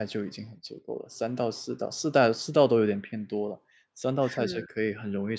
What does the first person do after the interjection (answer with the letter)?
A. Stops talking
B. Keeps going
B